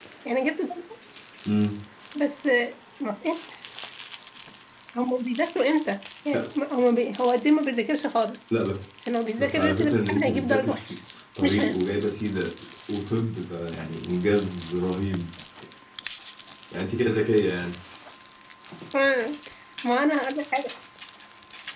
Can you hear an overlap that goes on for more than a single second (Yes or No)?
Yes